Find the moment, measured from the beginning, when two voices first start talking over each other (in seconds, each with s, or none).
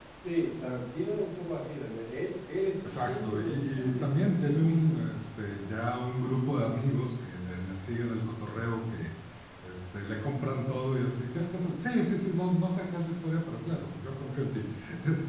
2.8 s